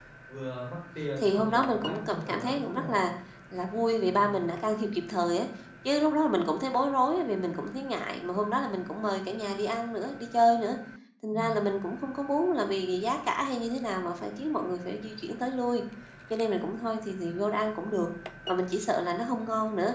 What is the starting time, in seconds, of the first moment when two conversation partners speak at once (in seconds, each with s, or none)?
1.2 s